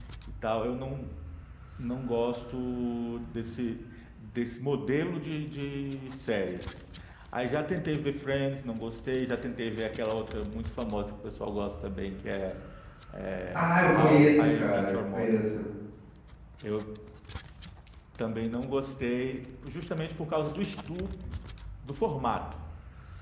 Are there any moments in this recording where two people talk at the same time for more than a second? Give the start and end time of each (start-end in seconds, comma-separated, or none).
13.5-15.4